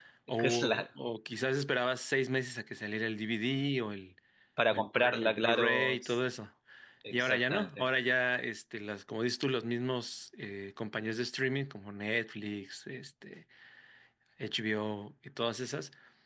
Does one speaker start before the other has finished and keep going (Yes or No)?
Yes